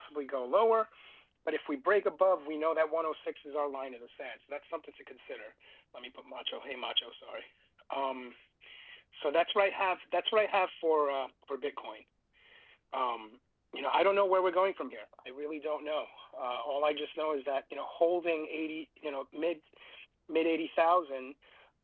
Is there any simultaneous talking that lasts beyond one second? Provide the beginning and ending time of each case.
none

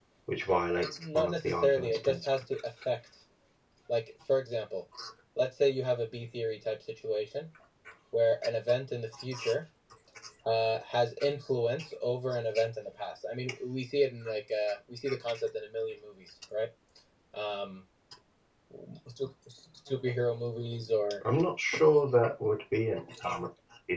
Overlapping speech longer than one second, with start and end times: 1.0-2.4

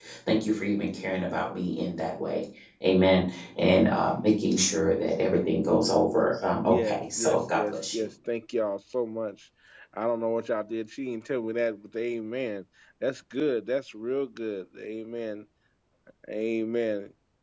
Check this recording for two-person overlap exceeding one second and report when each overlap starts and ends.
6.6-8.0

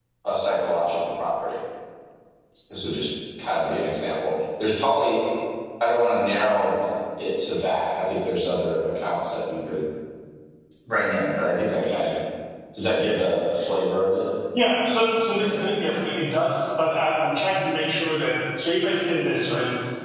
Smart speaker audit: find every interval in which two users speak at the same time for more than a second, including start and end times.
none

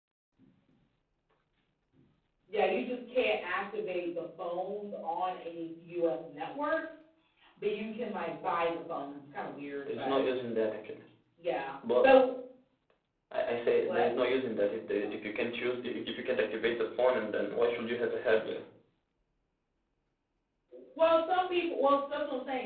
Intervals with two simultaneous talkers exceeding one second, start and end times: none

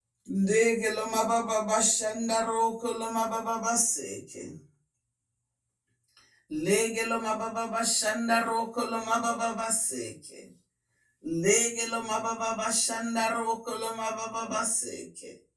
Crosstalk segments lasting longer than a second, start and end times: none

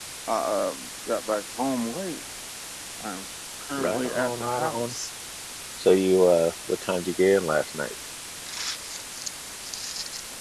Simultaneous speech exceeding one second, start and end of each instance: 3.8-5.0

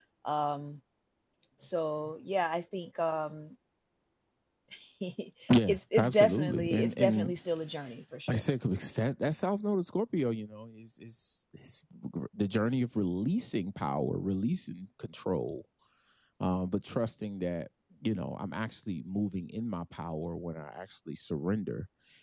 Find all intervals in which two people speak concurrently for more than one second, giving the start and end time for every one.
5.7-7.4

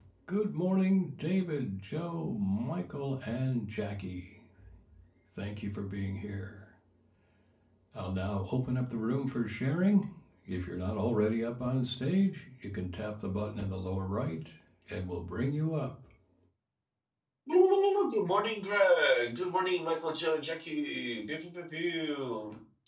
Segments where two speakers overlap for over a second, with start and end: none

